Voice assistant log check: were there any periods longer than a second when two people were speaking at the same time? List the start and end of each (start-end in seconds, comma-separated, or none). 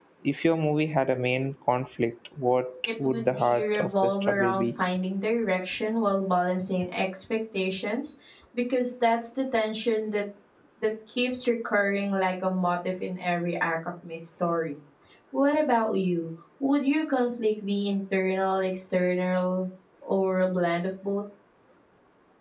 3.0-4.7